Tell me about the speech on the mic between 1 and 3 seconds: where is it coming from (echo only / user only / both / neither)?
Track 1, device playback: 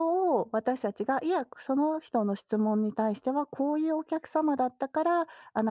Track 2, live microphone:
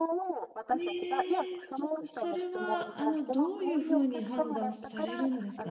both